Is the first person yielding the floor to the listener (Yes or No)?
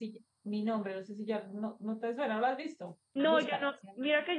Yes